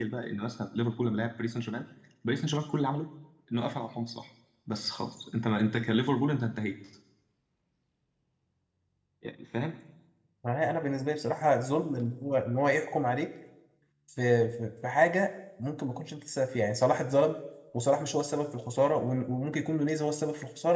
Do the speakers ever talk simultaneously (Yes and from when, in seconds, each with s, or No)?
No